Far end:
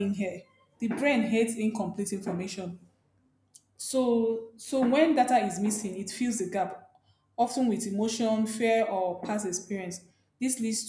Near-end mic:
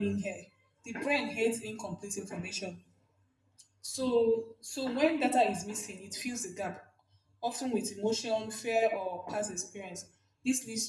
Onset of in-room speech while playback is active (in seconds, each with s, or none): none